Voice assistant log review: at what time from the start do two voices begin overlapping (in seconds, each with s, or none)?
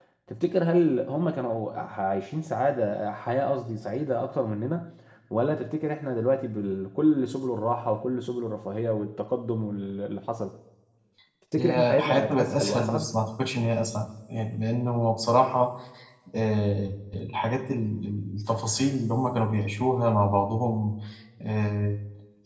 11.6 s